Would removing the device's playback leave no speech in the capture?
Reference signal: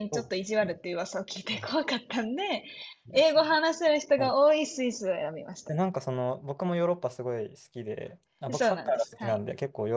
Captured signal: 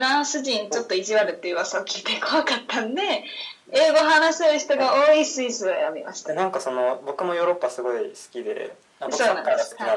Yes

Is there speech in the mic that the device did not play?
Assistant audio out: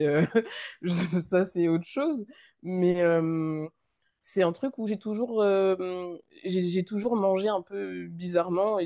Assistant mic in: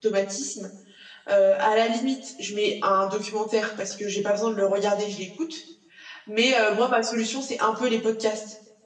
Yes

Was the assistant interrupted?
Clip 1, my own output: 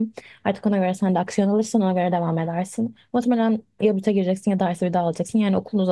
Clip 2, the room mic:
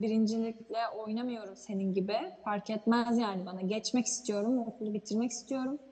Yes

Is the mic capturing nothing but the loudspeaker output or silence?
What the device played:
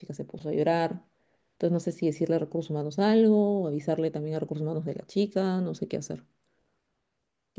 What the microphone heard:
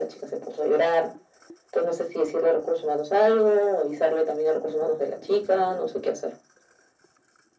Yes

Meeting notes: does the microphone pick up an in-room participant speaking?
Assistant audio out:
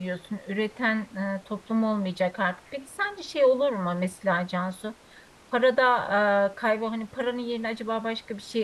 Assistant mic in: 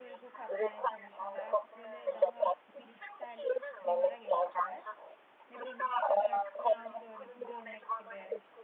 Yes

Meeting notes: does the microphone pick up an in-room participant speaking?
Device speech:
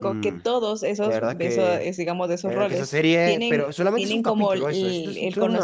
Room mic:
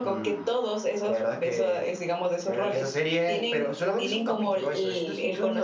No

